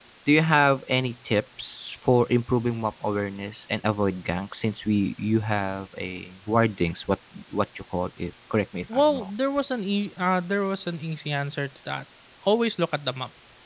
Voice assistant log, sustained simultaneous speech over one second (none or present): none